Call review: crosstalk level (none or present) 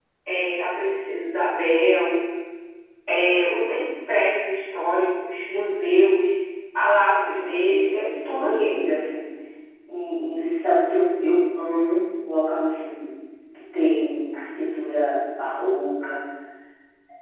present